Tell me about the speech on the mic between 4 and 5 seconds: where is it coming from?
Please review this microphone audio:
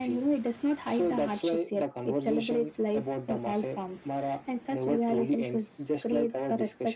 echo only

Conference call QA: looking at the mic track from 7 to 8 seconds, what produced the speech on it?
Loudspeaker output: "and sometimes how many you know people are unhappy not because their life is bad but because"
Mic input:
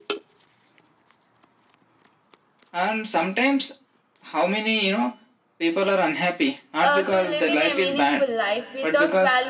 both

